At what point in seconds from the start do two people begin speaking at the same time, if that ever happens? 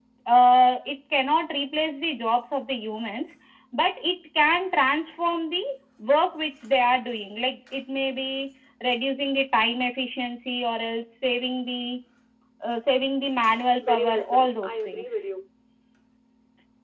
14 s

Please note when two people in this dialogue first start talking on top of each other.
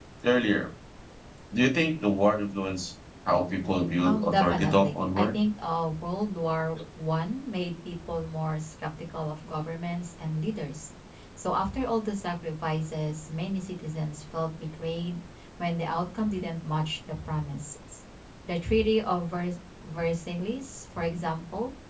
4 s

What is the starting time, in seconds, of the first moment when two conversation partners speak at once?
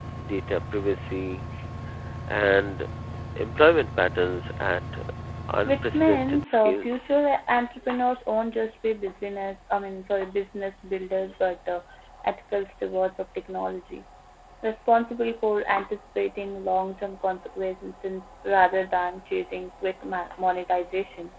6 s

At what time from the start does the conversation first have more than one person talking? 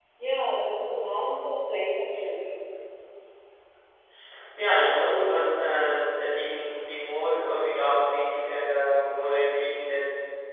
none

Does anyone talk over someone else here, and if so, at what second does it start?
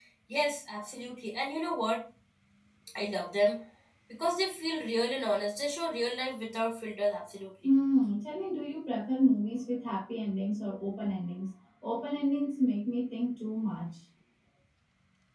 none

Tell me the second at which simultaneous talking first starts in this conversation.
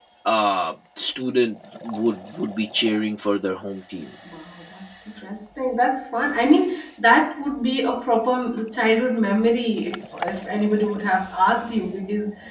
none

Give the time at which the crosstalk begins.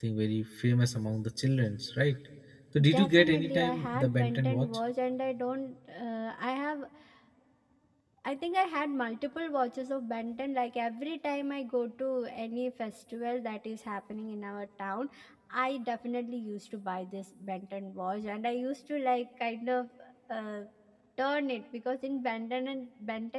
3 s

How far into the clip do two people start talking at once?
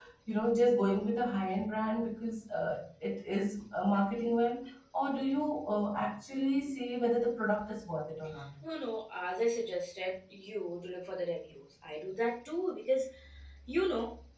none

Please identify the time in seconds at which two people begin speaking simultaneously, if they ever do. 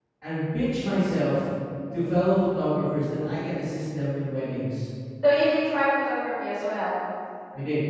none

